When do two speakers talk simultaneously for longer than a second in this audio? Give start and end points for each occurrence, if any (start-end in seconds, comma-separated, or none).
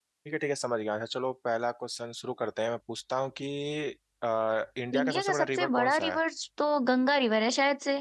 4.9-6.2